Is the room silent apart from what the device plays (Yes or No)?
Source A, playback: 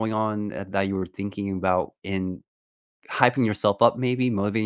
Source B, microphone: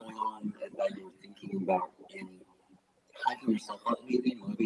Yes